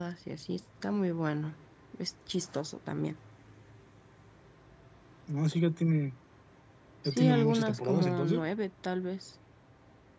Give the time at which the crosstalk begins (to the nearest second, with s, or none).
7 s